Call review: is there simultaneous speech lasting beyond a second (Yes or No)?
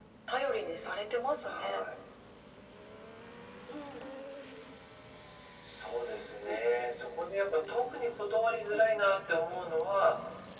No